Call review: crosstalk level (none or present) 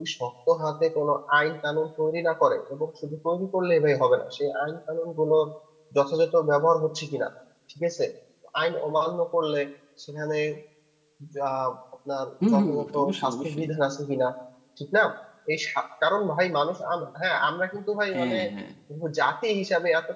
present